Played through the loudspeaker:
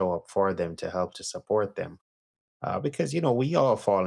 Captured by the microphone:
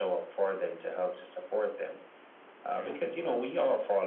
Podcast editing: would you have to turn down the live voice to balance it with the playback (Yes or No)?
No